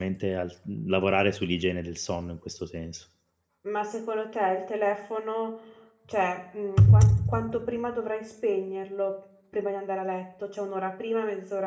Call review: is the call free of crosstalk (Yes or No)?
Yes